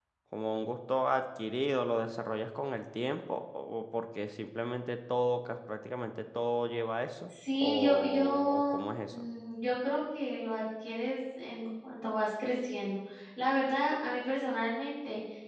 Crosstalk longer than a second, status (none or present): present